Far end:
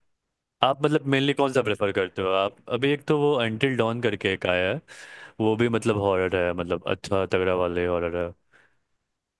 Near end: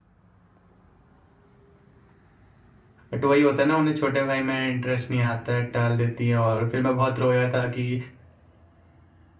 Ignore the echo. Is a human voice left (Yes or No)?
Yes